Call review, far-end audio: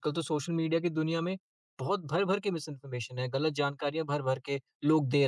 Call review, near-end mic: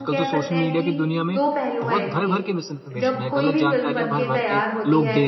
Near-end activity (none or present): present